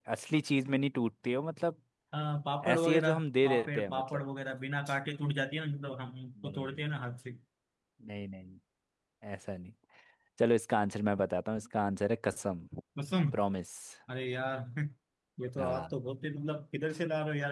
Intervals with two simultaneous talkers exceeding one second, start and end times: 2.7-4.0

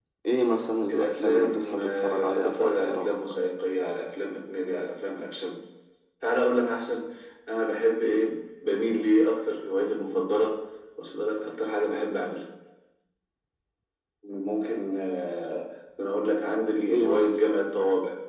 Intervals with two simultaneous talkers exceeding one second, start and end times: 0.9-3.1

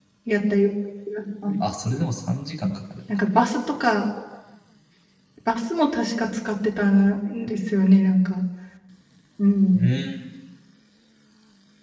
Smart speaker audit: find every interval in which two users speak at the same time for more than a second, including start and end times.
none

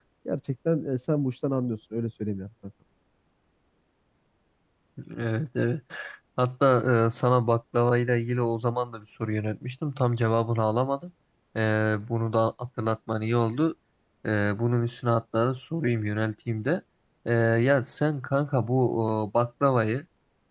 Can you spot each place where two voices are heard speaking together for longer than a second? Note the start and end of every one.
none

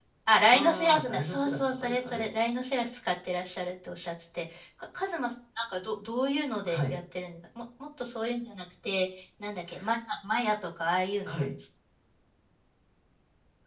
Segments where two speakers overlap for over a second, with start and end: 0.5-2.3

